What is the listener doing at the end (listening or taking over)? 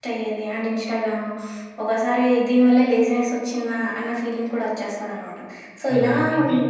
taking over